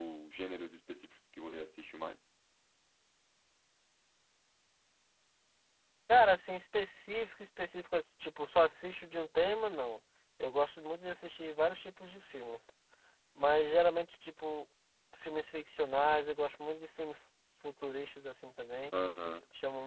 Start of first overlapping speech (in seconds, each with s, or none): none